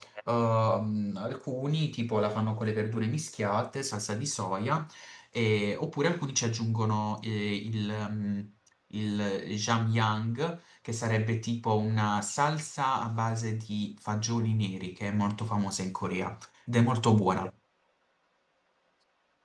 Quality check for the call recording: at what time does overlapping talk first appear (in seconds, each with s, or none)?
none